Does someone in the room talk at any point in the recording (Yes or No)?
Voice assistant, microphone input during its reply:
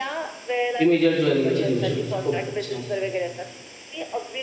Yes